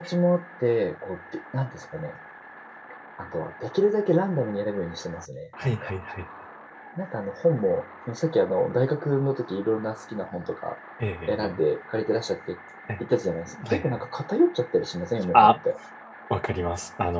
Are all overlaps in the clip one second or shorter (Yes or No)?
Yes